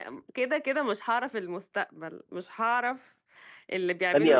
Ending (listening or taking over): listening